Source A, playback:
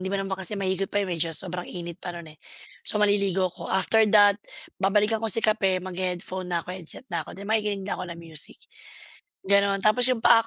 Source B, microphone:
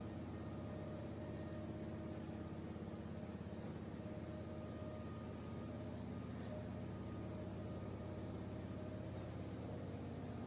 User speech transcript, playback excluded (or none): none